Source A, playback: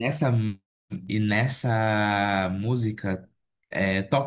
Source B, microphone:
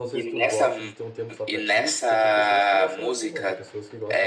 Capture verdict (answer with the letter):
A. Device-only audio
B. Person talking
B